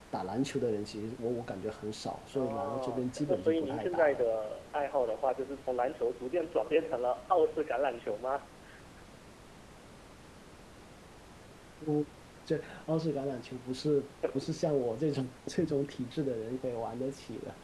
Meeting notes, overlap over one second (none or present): present